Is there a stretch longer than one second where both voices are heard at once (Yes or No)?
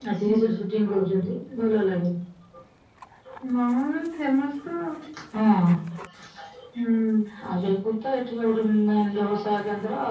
No